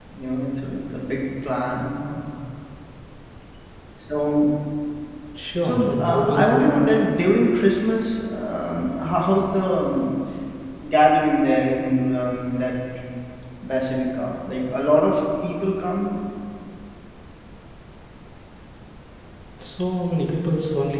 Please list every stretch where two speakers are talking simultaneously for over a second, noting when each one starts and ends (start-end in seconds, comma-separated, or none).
5.6-6.9